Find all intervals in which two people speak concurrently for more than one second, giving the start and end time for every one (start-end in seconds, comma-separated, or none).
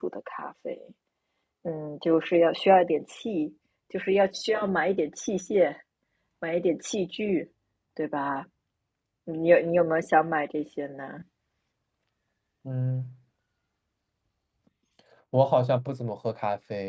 none